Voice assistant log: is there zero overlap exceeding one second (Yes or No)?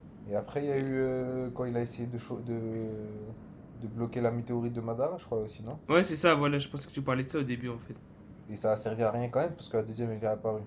Yes